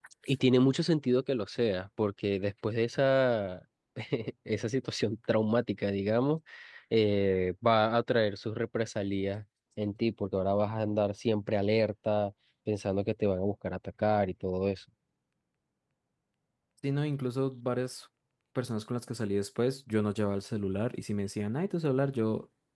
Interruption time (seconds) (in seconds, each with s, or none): none